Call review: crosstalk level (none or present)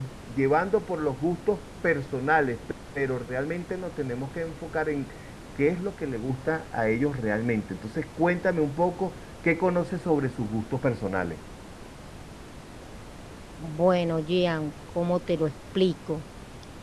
none